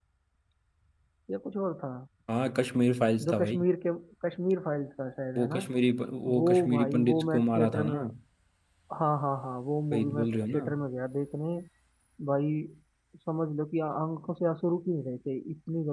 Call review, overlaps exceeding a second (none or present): present